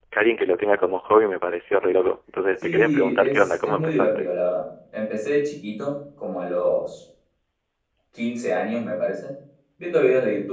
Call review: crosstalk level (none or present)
present